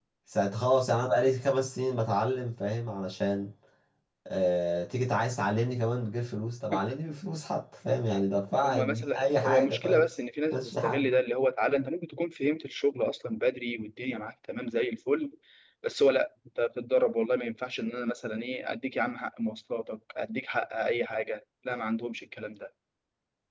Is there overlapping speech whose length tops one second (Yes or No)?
Yes